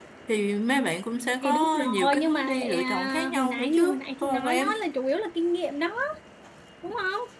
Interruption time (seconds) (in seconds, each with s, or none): 1.4 s